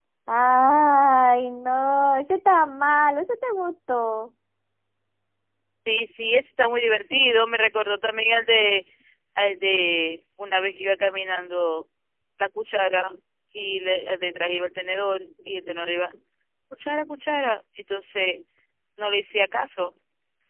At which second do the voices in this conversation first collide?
none

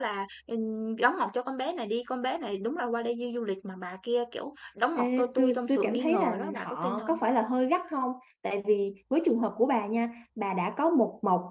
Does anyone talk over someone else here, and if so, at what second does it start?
4.9 s

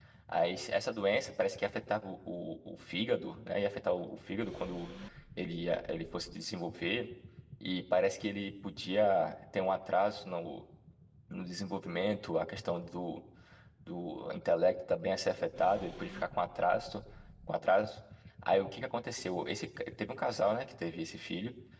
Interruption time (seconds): none

